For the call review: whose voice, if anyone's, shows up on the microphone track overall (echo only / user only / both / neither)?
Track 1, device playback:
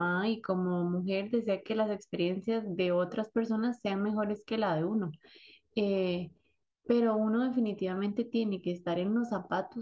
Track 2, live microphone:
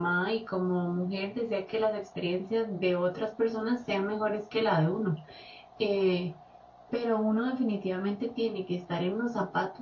echo only